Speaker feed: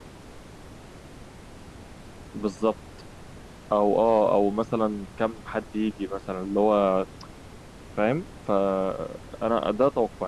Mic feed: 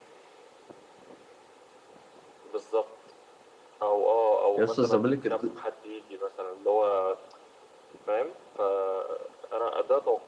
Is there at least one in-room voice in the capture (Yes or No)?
Yes